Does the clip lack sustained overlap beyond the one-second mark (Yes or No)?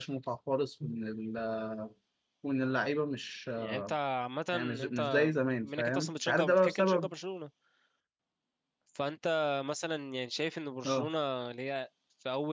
No